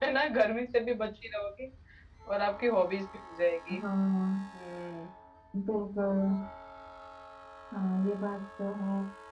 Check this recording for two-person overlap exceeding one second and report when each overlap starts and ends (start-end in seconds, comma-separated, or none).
none